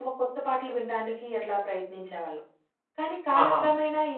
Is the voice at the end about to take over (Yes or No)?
No